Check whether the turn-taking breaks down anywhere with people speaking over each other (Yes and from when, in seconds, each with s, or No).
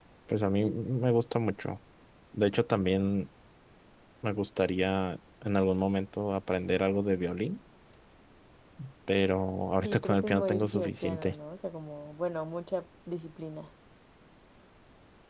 Yes, from 9.8 s